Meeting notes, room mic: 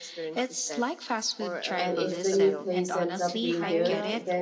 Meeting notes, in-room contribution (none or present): present